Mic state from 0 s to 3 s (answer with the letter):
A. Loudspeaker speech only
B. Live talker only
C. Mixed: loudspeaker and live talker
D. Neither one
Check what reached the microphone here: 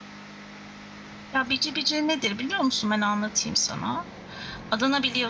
B